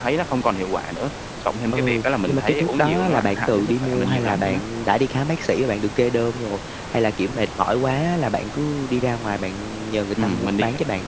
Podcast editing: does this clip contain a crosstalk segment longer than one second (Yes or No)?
Yes